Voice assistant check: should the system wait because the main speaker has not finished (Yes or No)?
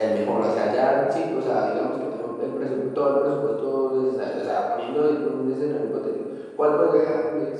Yes